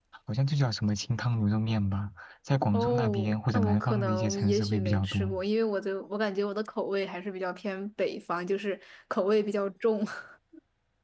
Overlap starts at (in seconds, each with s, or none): 2.7 s